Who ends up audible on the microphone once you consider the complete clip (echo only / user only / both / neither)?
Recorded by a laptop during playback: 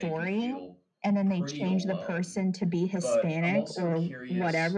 both